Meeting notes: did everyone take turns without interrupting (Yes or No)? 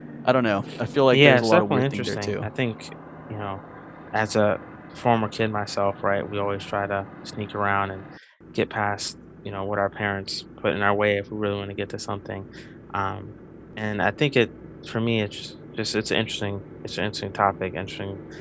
No